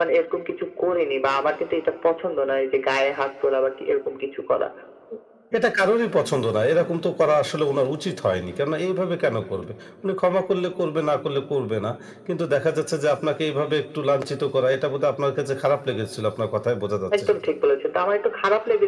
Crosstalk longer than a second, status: none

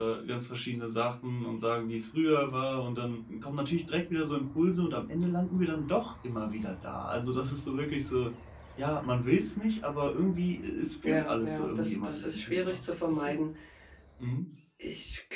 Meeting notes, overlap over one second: present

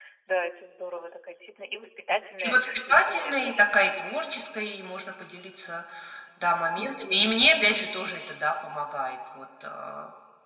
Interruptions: present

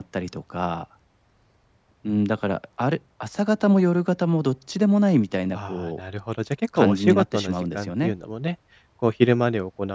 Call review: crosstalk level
present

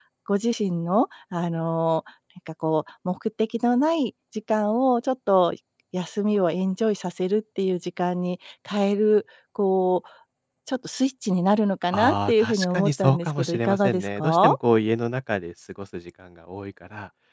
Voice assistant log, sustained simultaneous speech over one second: present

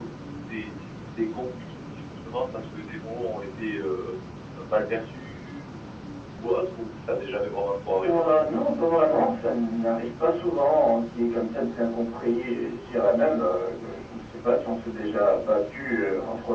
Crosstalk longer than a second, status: none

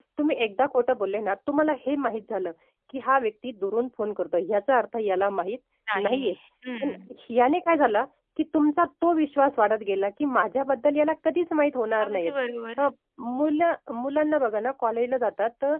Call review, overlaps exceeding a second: none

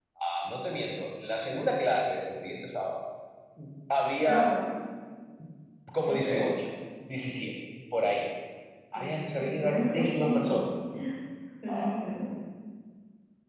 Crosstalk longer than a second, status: present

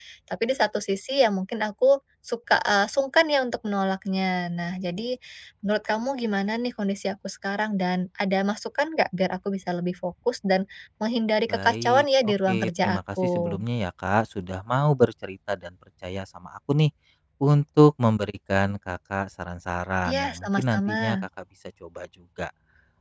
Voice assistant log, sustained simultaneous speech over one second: present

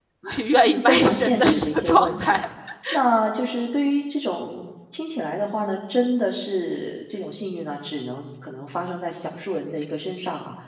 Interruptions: present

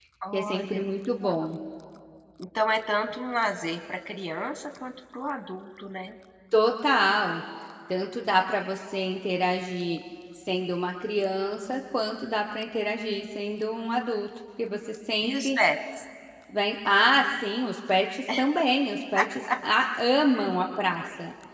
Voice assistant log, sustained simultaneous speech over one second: none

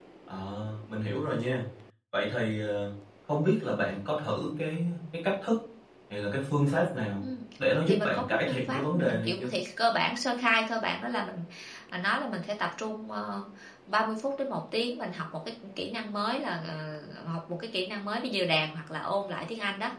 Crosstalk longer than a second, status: present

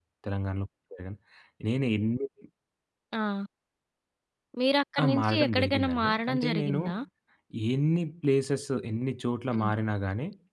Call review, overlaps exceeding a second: present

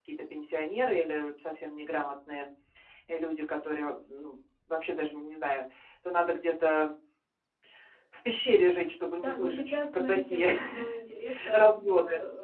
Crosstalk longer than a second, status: present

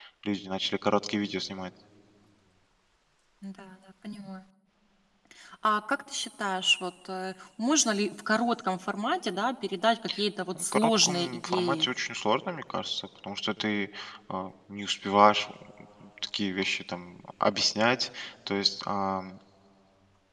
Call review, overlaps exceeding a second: present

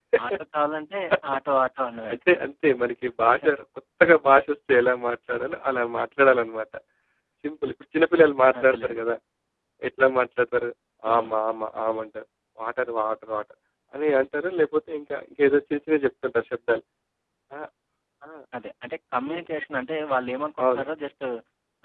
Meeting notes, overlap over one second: none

